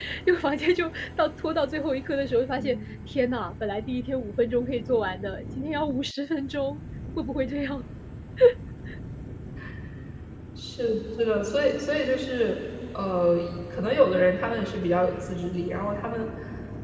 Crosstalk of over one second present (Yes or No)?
No